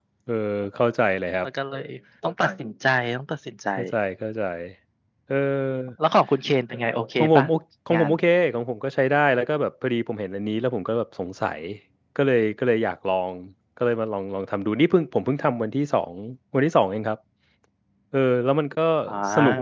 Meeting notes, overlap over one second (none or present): none